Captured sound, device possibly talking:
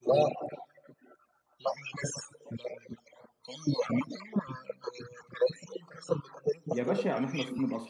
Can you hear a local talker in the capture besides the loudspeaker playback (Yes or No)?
Yes